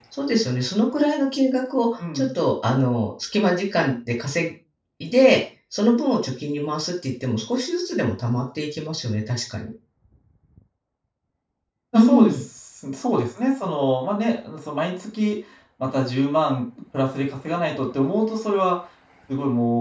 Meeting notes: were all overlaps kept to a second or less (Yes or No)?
Yes